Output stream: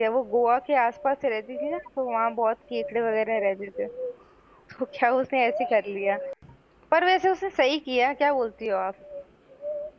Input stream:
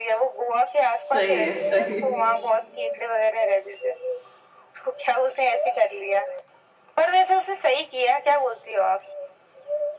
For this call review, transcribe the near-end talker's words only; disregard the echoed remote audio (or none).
सही है सही है